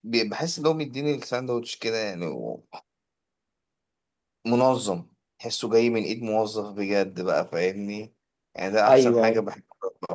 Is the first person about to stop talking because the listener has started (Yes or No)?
No